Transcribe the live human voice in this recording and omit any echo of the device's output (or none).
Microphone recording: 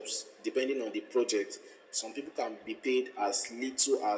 none